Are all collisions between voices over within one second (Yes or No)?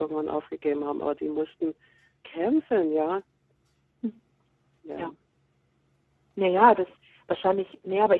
Yes